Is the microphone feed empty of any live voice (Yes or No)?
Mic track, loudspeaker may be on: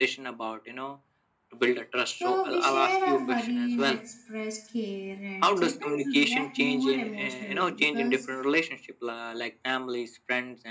No